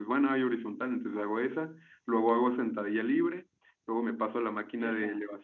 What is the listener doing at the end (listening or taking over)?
listening